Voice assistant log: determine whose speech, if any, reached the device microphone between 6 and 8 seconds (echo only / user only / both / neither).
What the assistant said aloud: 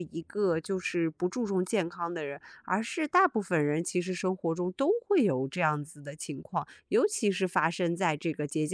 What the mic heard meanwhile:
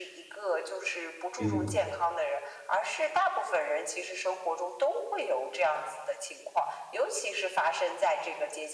echo only